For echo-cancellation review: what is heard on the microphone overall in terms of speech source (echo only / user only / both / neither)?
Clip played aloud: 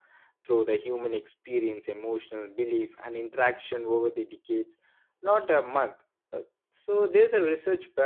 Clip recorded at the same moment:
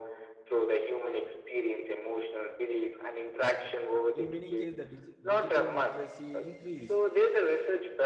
both